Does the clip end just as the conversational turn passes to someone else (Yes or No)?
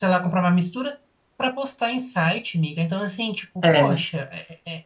No